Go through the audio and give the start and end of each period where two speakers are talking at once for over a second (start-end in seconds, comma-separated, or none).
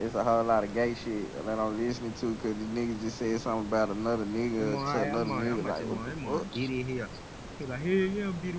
4.6-6.5